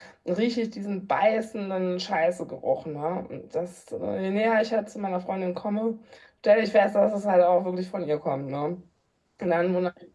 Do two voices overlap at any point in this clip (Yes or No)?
No